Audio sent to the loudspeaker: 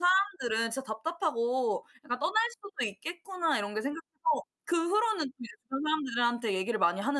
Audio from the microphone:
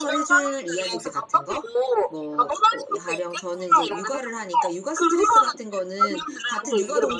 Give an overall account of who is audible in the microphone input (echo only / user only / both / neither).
both